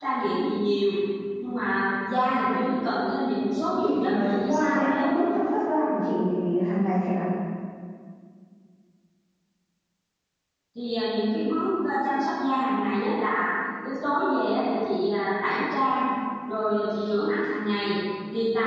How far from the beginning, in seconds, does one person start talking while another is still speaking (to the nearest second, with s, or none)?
4 s